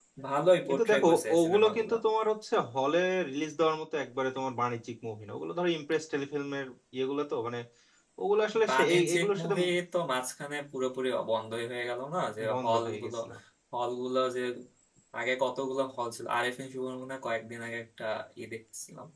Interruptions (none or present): present